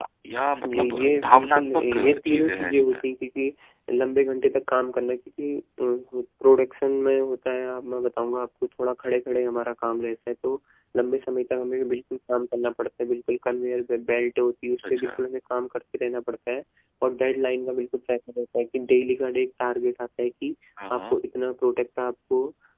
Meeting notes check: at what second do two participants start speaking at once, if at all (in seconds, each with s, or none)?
0.7 s